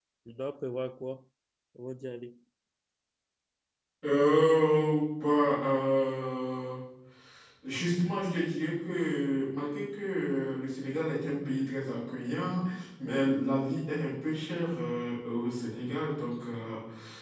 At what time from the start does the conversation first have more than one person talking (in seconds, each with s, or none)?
none